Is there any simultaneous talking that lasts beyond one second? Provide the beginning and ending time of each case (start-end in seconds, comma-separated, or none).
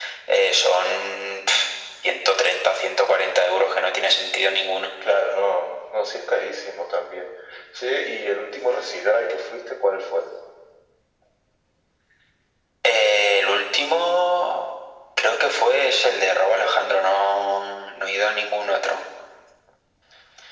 none